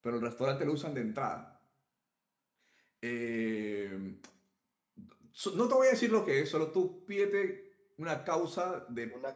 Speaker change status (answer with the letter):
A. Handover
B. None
B